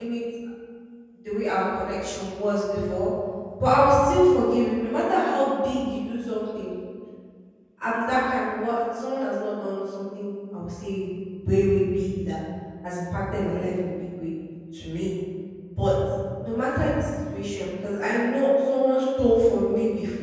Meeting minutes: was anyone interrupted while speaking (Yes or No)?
No